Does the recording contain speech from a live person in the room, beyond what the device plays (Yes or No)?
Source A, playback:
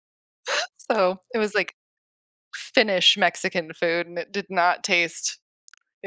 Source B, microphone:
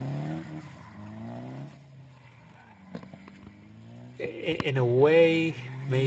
Yes